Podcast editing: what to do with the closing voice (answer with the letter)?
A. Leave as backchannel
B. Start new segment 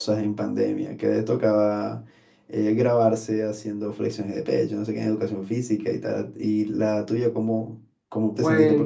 A